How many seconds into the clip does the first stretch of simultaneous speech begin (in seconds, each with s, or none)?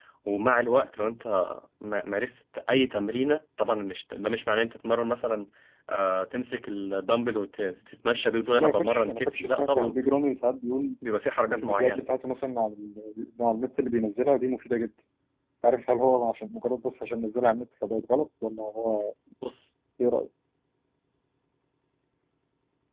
8.4 s